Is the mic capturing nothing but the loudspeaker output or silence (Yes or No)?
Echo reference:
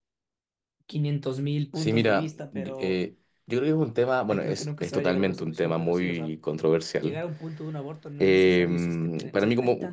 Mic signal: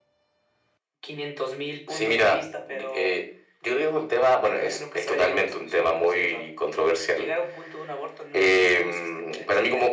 Yes